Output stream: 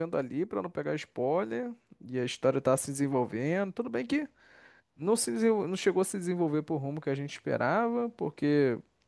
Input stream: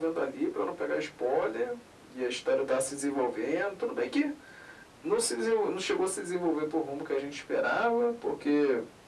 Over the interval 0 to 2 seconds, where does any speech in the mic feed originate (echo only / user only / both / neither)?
echo only